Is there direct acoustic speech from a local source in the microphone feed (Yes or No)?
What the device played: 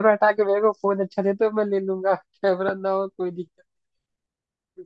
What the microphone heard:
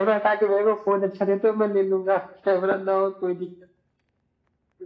No